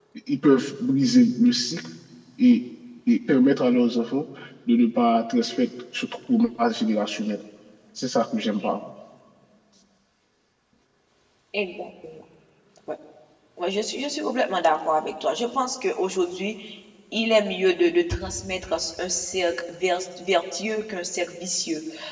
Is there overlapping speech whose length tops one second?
No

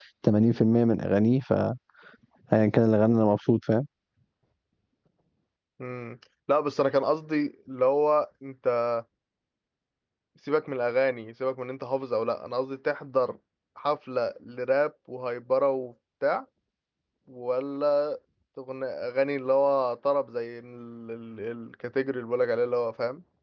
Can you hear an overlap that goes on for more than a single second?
No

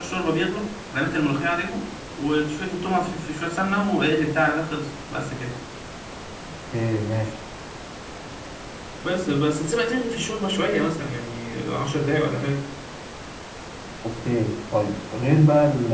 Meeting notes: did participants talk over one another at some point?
No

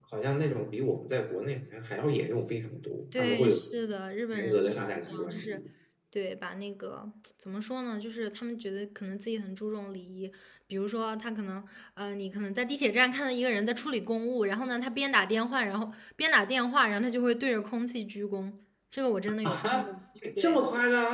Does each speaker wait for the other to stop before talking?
No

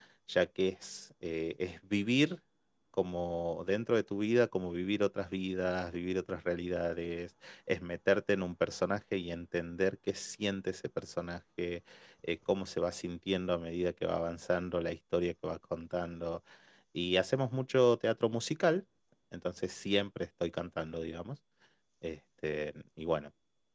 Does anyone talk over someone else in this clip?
No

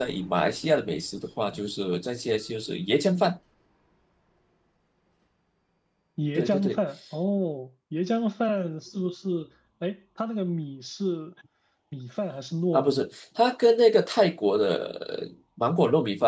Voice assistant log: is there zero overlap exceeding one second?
Yes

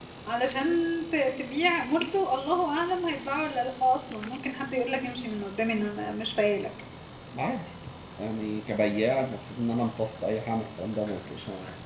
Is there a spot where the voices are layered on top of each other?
No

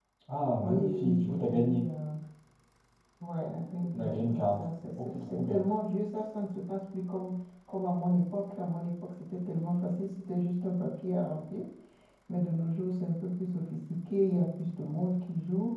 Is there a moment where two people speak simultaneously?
Yes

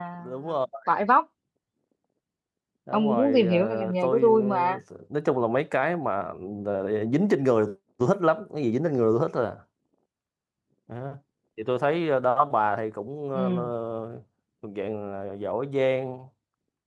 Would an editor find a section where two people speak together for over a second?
Yes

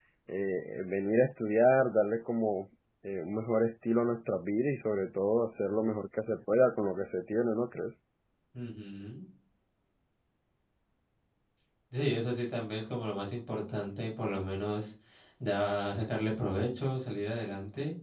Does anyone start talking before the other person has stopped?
No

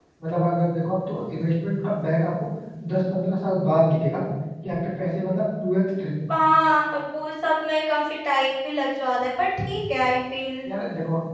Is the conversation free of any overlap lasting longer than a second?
Yes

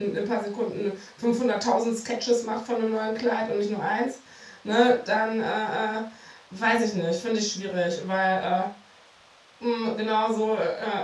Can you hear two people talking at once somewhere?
No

